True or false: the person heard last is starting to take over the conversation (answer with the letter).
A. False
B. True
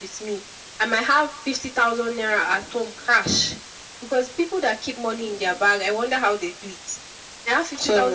A